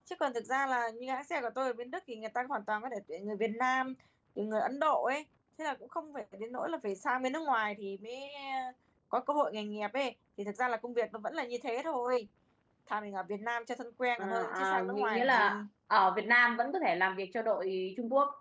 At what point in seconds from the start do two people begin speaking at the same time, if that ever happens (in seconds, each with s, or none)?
14.2 s